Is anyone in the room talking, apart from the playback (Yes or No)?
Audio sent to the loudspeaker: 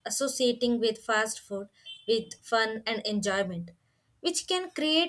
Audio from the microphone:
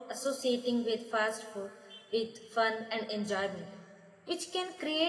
No